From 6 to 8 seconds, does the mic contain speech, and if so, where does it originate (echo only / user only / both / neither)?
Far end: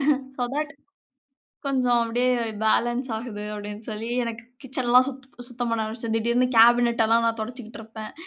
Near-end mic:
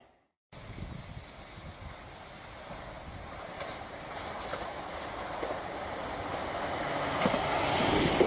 neither